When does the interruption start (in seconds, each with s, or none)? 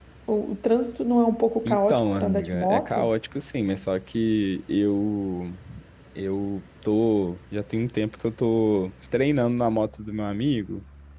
1.6 s